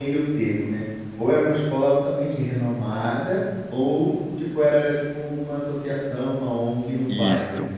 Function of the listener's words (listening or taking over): taking over